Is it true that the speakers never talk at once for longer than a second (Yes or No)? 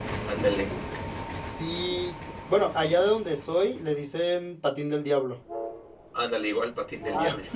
Yes